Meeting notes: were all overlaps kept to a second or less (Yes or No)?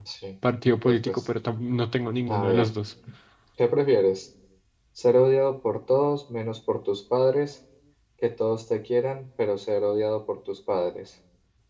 Yes